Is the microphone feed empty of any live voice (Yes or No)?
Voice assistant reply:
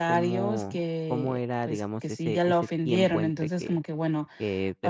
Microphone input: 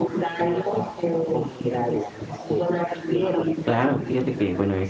No